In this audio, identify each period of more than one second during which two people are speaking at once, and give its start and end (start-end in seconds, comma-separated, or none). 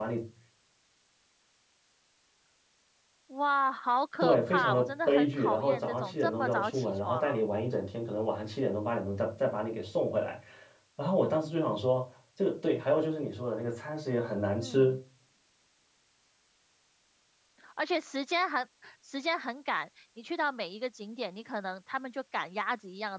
4.2-7.4